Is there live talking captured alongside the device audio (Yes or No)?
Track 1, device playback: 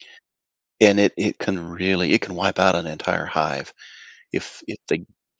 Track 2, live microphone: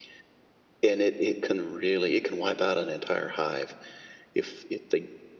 No